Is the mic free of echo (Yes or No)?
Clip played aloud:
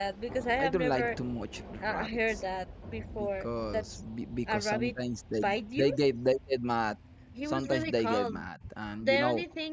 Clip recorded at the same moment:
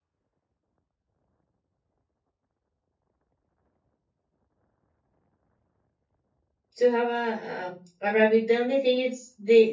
Yes